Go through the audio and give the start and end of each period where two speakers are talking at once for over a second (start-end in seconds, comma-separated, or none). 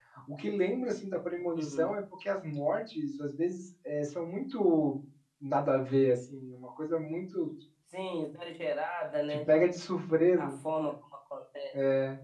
none